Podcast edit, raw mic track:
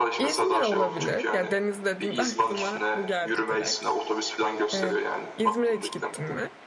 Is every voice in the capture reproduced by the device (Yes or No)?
No